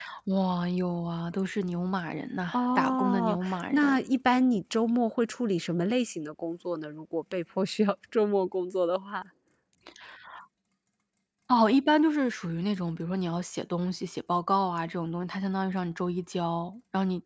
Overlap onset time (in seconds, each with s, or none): 2.5 s